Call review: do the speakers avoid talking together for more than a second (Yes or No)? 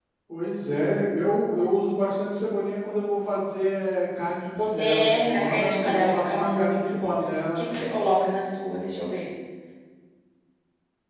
No